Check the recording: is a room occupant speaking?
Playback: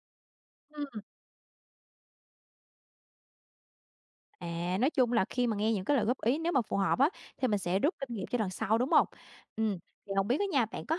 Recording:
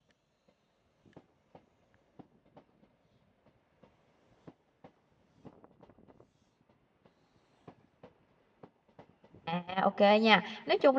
Yes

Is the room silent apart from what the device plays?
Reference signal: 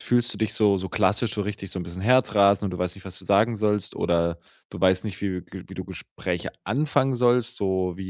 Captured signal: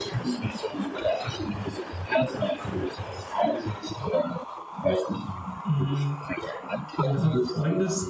No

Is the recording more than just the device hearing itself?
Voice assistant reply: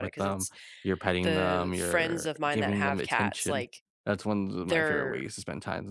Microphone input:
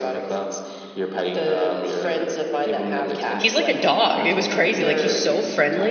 Yes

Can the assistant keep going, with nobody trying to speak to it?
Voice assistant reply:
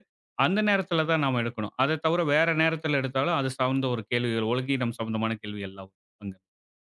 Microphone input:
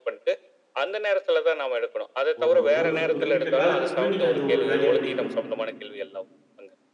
No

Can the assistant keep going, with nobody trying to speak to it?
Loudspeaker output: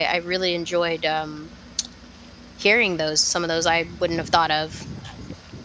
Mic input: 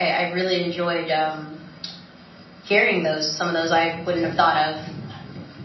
Yes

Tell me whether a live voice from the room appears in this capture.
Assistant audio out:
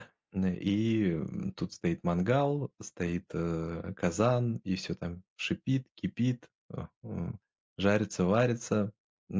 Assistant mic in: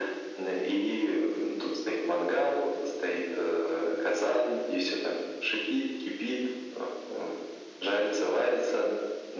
No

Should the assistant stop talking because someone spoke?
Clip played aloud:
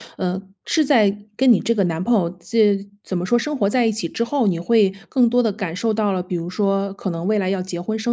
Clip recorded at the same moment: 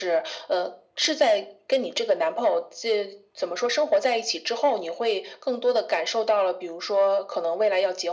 No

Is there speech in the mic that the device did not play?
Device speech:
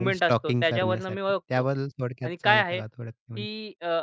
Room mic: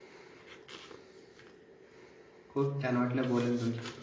Yes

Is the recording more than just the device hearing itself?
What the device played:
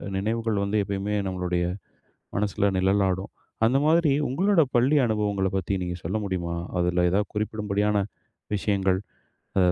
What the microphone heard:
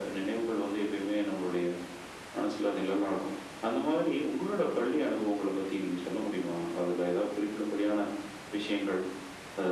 No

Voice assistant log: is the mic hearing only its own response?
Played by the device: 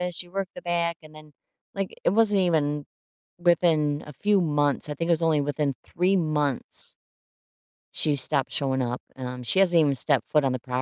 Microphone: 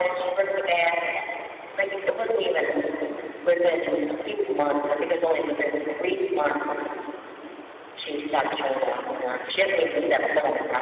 Yes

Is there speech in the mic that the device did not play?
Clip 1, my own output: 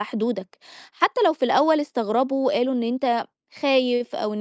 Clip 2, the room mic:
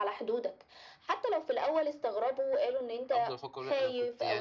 Yes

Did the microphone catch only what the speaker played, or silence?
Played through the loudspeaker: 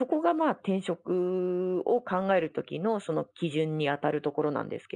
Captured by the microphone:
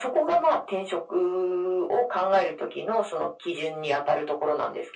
Yes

